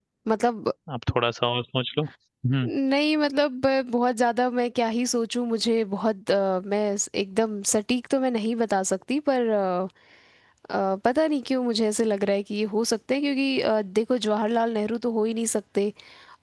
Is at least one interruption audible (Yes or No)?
No